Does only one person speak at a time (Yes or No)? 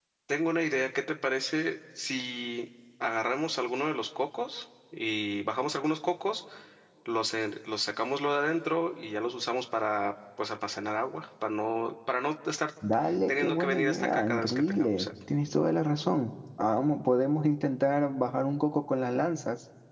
No